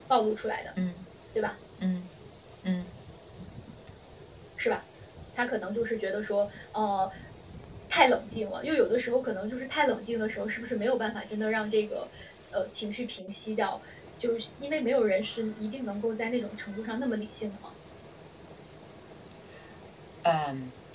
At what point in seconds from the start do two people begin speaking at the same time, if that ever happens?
none

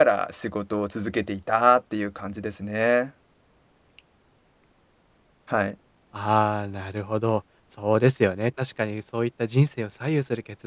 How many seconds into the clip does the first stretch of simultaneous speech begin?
none

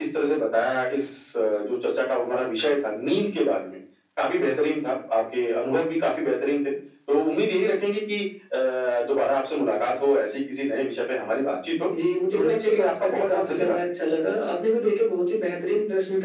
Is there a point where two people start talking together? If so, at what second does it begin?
12.3 s

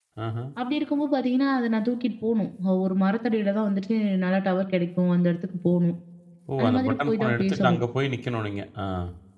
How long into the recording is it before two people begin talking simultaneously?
6.6 s

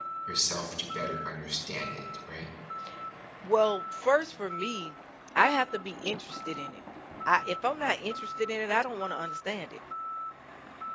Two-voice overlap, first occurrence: none

